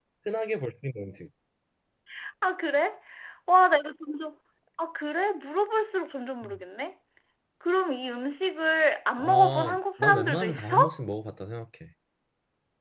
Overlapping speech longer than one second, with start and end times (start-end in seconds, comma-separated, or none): 9.2-10.8